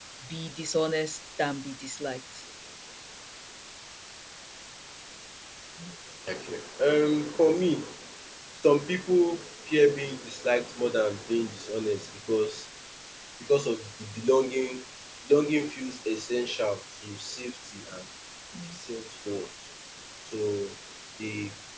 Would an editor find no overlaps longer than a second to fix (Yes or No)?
Yes